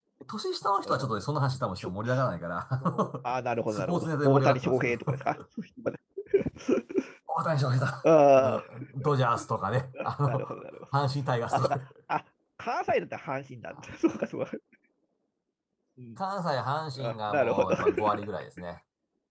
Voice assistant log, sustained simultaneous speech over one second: present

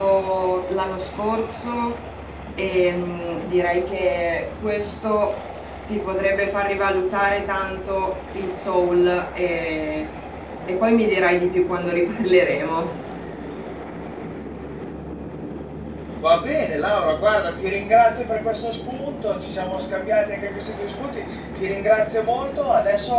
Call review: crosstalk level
none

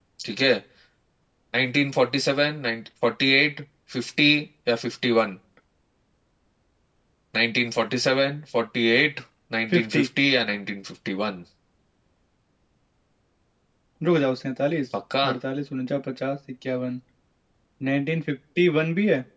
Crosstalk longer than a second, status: none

